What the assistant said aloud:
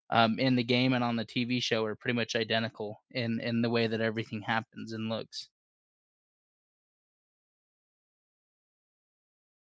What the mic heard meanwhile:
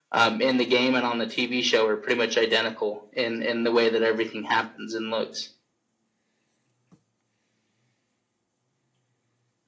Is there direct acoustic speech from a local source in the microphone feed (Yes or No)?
No